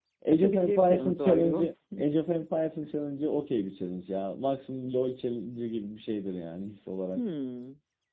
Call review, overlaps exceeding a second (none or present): present